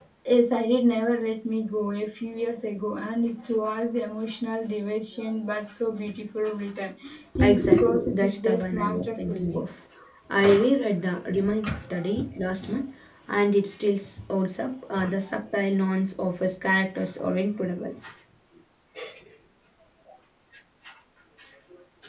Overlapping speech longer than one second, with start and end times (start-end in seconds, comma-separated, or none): 7.4-9.6